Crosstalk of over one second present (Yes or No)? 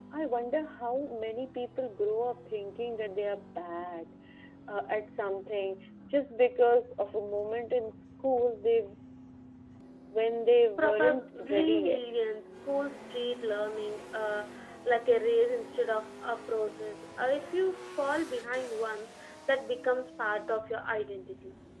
Yes